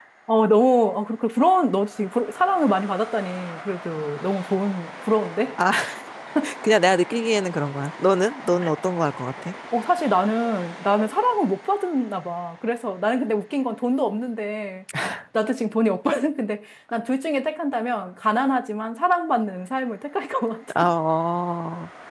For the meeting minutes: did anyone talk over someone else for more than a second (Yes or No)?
No